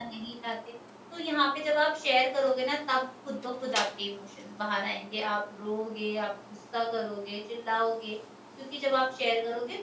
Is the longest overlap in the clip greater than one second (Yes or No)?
No